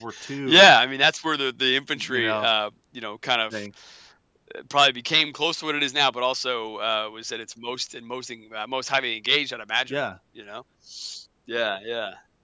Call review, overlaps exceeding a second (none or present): none